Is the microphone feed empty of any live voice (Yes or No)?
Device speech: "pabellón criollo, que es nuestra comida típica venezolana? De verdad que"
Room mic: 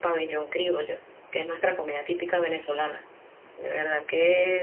Yes